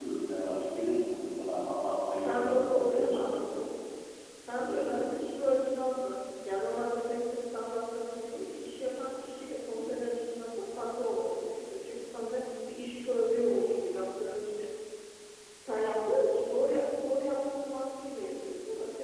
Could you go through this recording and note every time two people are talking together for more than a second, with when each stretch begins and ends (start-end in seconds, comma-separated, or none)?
2.2-3.4